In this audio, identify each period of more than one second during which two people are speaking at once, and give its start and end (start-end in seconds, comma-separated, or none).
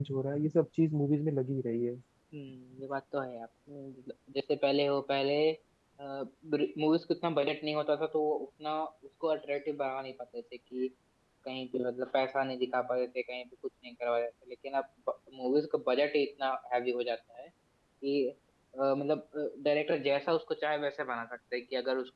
none